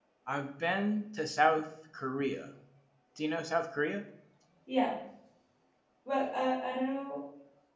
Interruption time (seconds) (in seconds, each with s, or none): none